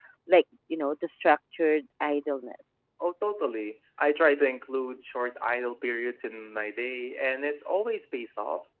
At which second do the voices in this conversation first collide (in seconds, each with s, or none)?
none